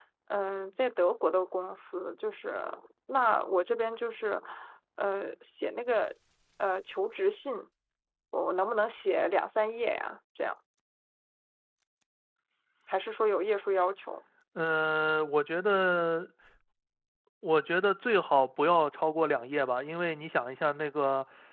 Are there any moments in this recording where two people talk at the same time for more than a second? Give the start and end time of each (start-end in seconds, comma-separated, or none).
none